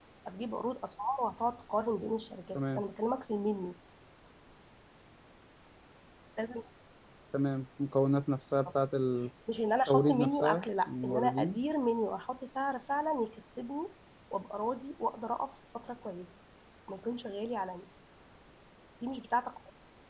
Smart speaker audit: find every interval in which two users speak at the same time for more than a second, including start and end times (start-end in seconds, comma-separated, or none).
9.9-11.6